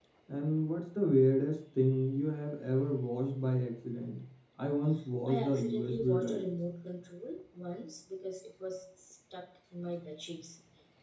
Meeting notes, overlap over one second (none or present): present